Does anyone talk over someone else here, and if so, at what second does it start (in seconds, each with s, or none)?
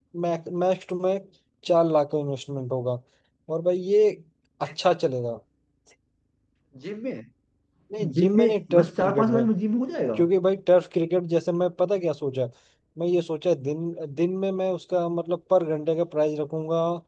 8.1 s